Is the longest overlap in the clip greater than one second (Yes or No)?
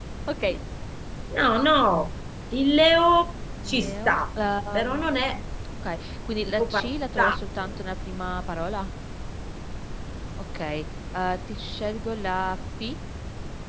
Yes